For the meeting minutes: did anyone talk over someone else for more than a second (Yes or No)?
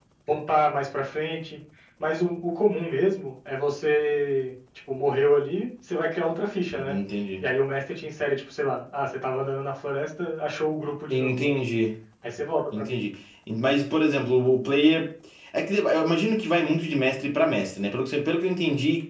No